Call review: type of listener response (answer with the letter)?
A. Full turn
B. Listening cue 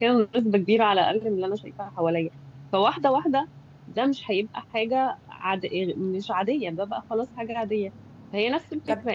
B